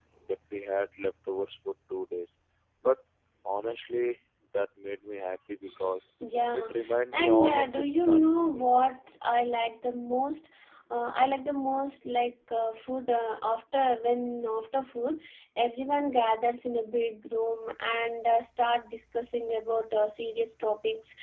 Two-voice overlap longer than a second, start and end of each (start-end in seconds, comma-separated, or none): 7.1-8.9